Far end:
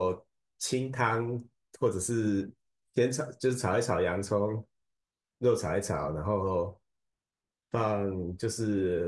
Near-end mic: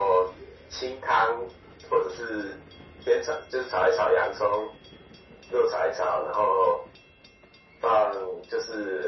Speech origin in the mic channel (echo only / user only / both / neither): echo only